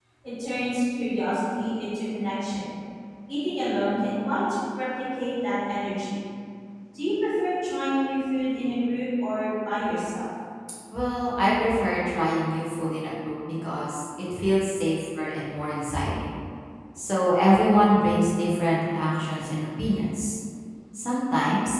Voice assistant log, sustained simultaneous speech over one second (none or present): none